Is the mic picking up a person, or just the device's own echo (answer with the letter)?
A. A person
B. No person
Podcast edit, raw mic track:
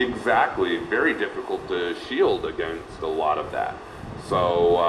B